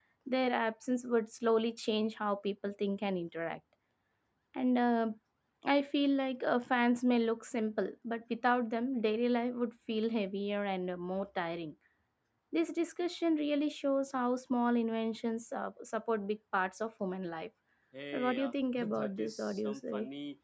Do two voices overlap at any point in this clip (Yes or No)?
Yes